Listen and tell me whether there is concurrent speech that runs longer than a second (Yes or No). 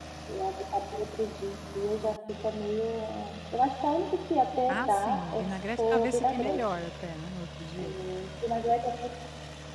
Yes